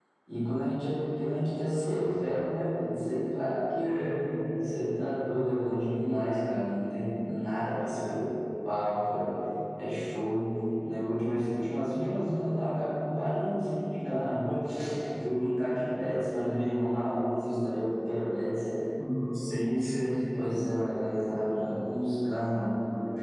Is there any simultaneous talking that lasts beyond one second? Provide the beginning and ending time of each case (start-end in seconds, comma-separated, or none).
none